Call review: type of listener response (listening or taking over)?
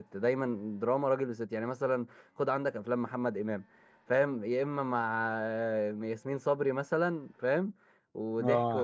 taking over